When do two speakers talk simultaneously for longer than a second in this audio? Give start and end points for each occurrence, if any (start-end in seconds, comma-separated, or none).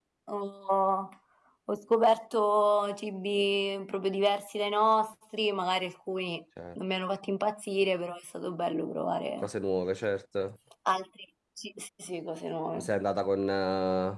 none